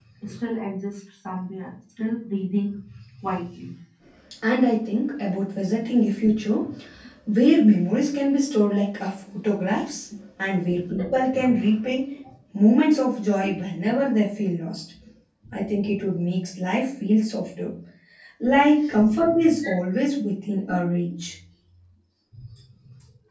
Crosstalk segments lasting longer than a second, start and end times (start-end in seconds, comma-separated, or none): none